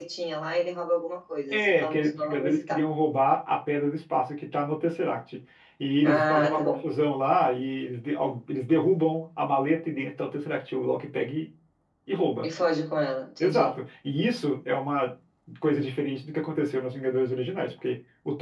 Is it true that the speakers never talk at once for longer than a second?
No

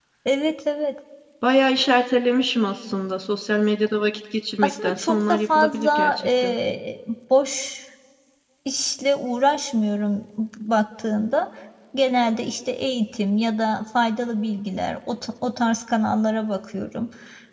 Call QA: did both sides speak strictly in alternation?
No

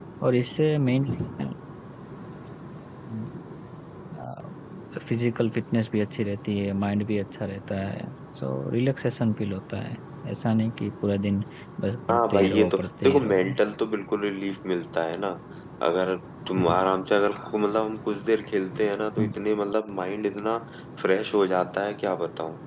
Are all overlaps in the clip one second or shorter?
No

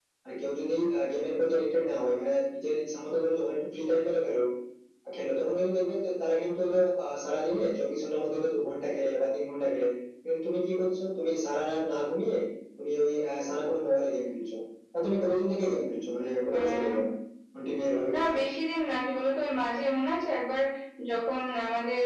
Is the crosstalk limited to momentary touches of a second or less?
Yes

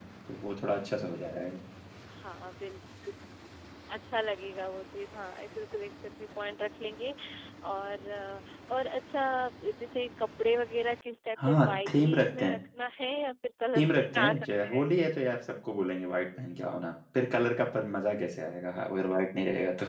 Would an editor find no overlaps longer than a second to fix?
No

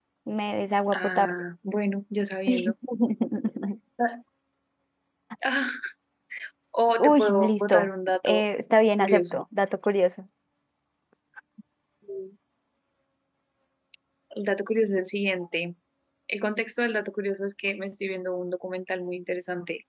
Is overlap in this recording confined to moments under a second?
No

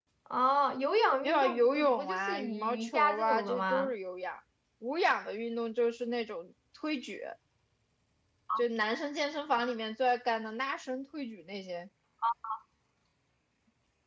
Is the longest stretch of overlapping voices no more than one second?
No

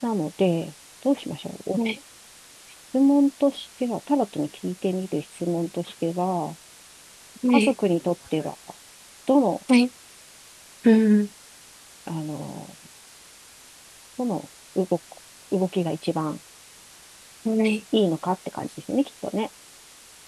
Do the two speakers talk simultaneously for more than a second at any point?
No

